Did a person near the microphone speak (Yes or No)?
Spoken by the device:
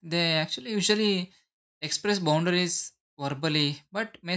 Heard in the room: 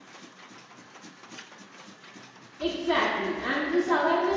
Yes